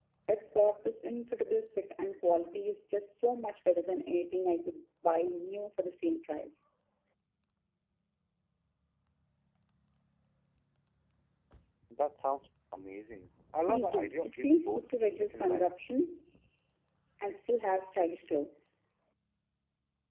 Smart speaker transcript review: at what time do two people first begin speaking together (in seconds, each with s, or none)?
13.6 s